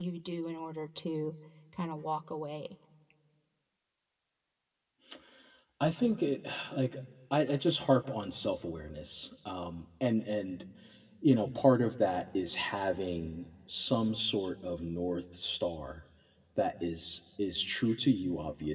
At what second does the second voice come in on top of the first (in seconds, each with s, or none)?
none